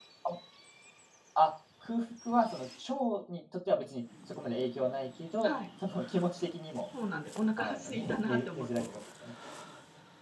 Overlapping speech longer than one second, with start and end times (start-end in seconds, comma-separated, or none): 7.6-8.8